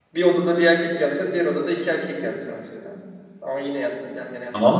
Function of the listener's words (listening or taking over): taking over